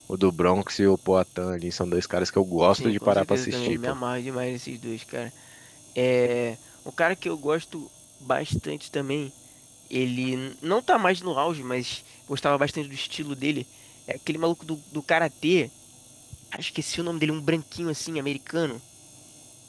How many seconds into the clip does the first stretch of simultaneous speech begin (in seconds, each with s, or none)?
2.7 s